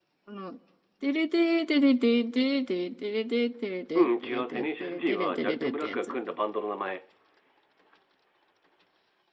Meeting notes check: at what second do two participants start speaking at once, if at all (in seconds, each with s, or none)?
4.0 s